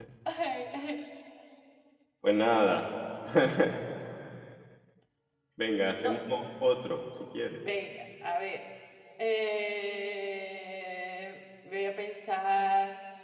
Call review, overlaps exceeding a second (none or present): none